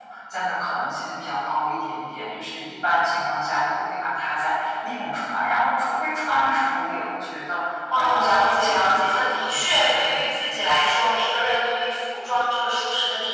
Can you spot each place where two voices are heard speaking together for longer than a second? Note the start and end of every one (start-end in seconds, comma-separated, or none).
8.0-10.2